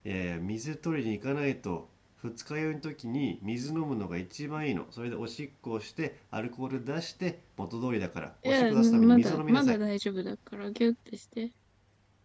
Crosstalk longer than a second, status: present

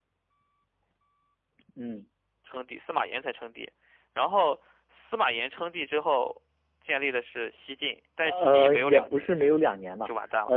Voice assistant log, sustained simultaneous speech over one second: present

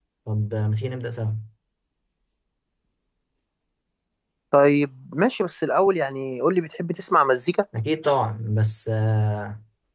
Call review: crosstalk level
none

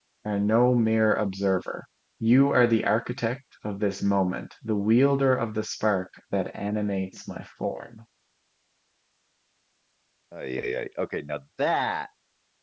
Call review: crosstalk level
none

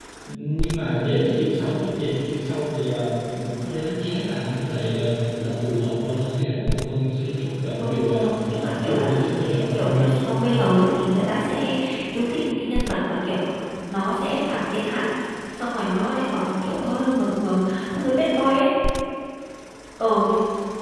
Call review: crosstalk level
present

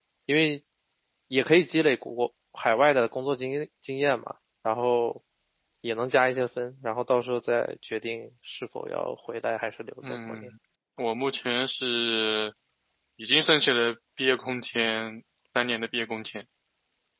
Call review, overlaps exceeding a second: none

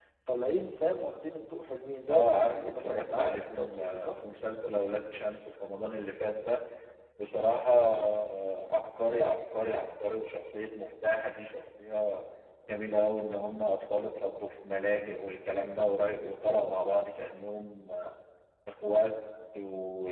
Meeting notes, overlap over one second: present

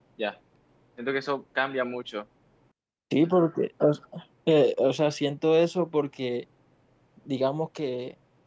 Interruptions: none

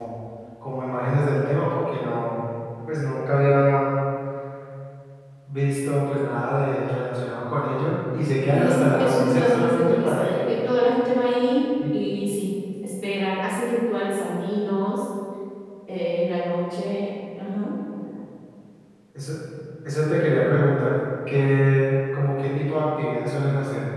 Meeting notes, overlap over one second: present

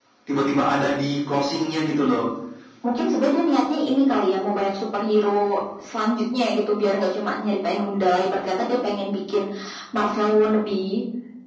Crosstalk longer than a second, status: none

